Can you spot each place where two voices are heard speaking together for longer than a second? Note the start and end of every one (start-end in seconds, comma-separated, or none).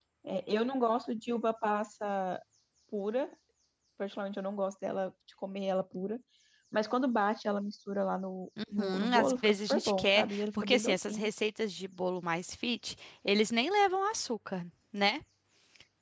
8.8-11.3